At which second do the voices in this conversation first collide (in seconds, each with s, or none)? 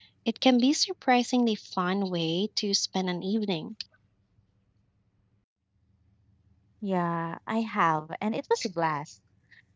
none